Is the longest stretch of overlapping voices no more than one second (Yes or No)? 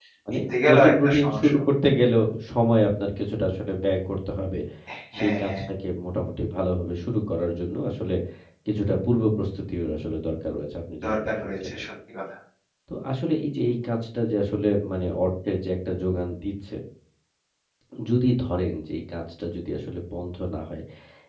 No